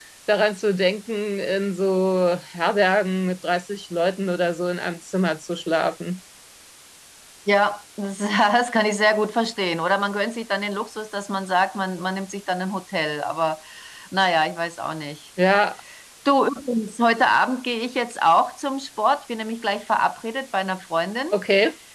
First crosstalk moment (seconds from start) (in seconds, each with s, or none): none